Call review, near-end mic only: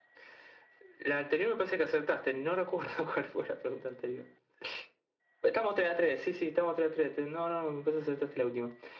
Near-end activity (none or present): none